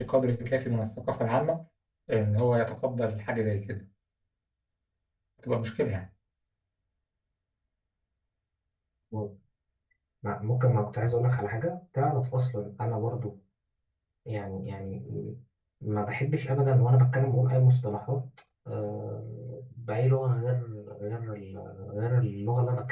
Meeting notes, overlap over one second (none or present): none